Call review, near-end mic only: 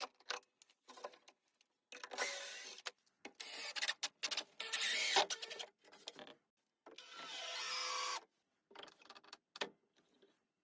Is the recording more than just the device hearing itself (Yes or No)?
No